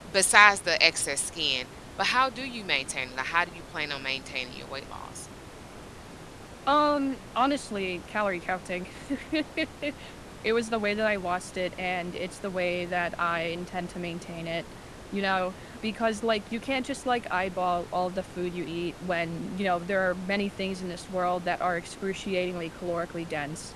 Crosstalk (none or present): none